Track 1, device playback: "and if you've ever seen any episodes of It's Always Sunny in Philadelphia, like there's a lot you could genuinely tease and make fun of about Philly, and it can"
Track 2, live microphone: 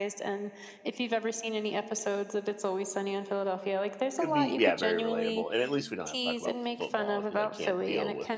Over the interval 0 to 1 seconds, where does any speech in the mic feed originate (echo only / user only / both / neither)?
echo only